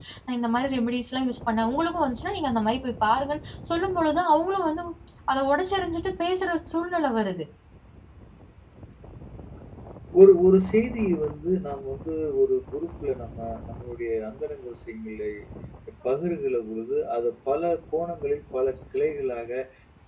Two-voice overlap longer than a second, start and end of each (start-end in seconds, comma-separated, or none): none